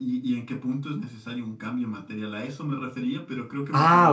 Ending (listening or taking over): taking over